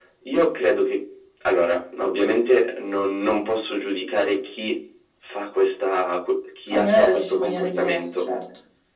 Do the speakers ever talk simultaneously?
Yes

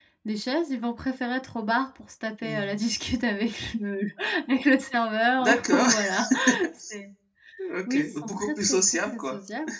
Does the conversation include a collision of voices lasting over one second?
Yes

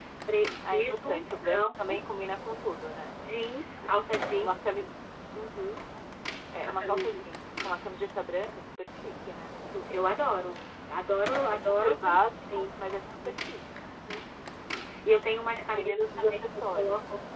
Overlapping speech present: Yes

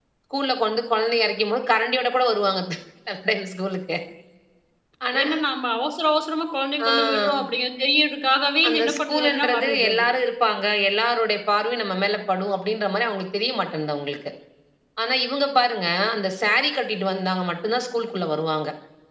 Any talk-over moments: Yes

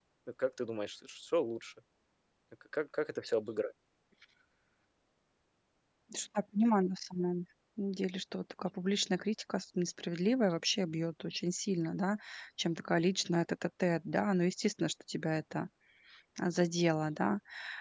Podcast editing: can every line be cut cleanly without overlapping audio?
Yes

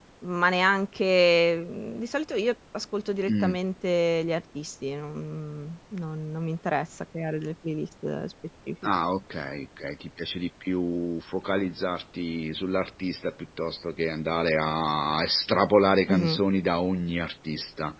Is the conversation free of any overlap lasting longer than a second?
Yes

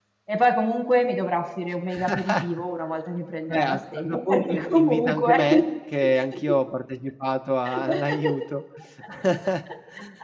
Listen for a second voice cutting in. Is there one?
Yes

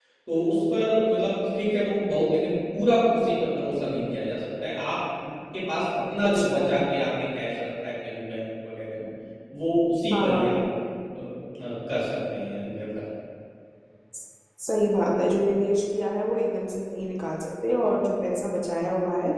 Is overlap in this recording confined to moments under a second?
Yes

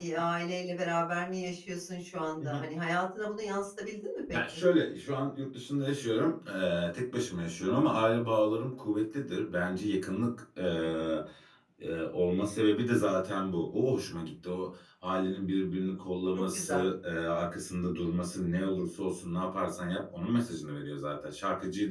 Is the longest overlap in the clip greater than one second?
No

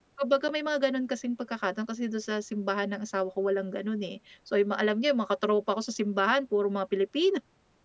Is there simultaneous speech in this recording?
No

